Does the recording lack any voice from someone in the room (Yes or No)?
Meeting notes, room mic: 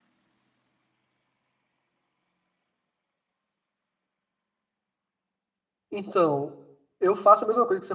No